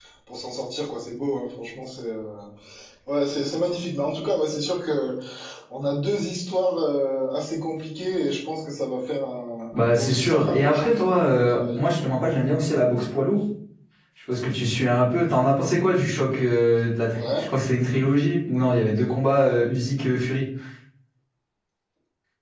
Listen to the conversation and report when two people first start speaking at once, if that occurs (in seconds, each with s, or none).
9.8 s